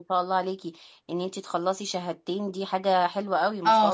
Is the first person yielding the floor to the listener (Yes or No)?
Yes